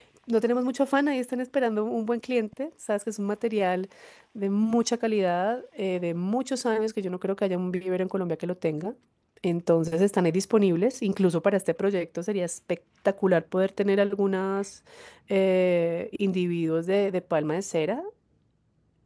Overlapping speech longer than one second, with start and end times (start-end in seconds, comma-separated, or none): none